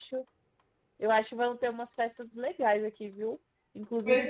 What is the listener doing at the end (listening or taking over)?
listening